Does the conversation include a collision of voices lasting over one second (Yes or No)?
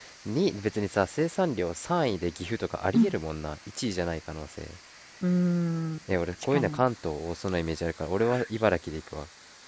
No